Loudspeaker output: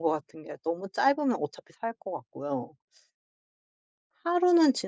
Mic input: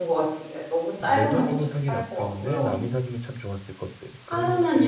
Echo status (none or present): present